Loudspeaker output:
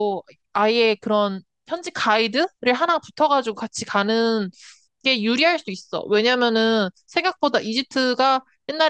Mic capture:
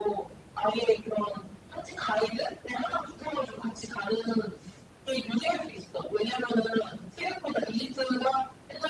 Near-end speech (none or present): none